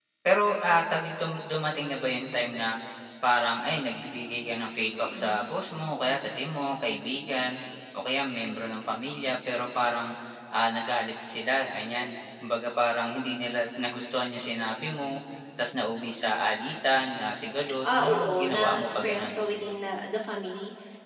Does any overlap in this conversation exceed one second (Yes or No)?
Yes